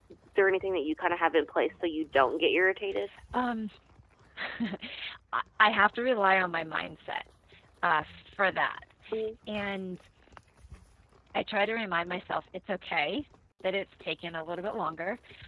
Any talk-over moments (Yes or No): No